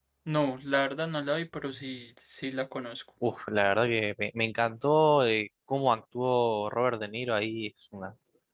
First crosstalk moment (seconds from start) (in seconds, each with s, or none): none